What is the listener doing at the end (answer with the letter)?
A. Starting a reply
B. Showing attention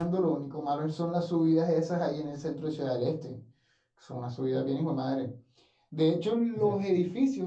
B